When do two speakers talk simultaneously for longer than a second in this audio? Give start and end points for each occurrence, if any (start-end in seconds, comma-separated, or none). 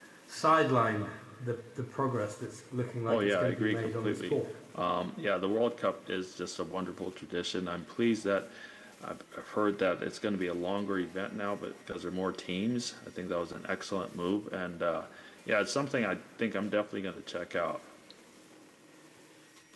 3.1-4.4